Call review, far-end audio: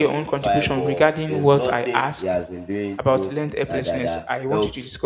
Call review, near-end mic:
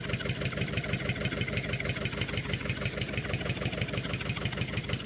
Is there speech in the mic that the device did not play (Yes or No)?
No